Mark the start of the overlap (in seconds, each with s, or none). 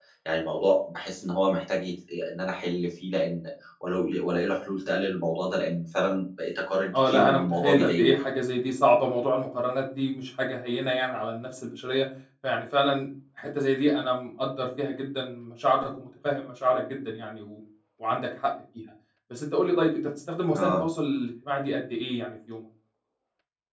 6.9 s